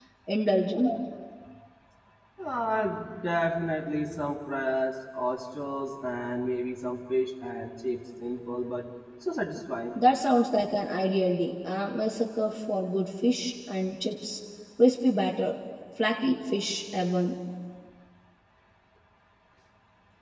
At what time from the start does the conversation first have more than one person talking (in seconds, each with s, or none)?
none